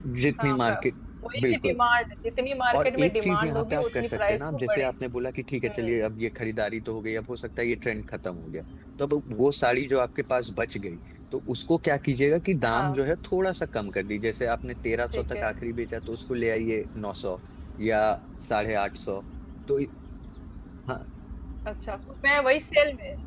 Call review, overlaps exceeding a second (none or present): present